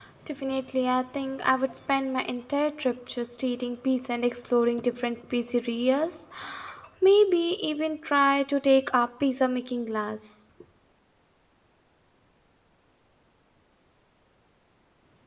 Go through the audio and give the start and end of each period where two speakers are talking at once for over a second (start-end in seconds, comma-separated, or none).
none